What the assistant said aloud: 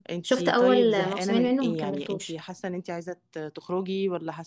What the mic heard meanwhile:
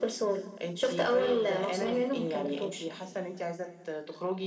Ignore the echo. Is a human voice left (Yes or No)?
No